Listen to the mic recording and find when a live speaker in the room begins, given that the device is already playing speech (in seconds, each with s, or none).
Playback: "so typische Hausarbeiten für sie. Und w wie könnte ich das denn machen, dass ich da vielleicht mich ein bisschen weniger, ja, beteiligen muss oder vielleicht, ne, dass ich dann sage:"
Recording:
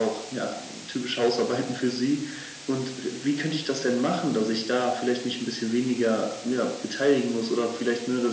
none